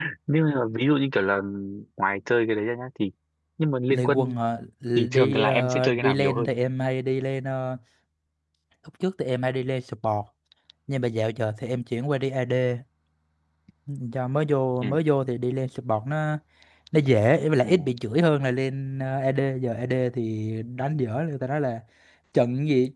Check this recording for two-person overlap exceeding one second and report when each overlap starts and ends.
5.1-6.5

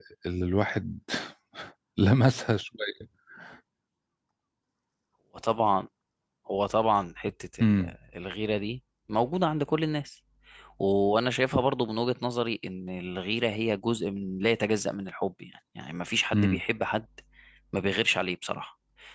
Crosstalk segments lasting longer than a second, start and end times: none

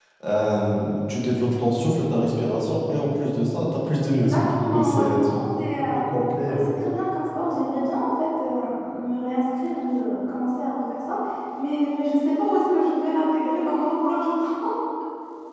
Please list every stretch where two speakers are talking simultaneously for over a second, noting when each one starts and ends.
4.1-5.9

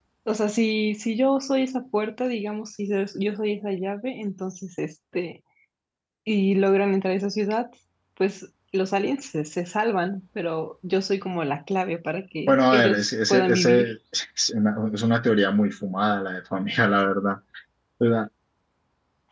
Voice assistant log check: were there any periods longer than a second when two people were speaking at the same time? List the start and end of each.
12.5-13.9

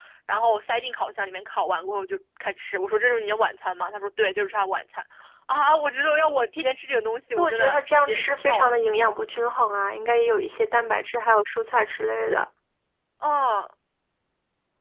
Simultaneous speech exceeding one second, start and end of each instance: 7.4-8.7

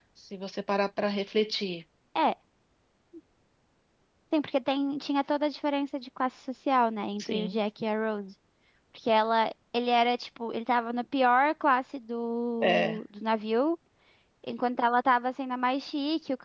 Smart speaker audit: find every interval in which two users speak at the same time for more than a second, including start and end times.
none

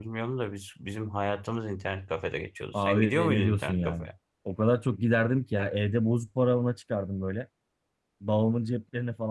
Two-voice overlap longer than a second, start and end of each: 2.7-4.1

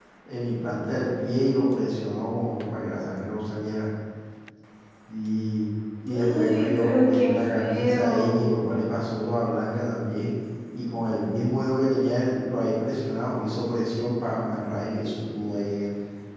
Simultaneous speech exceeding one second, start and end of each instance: 6.1-8.6

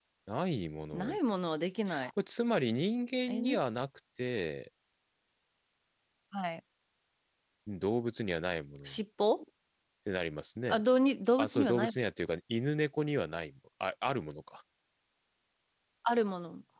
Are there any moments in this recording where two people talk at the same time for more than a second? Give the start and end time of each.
none

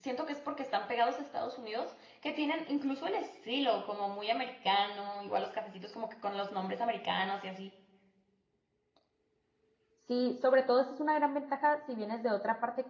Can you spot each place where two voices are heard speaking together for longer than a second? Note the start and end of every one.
none

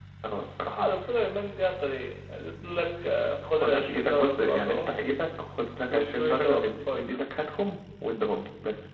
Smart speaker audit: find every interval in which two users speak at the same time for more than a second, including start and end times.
3.4-5.0, 5.9-7.2

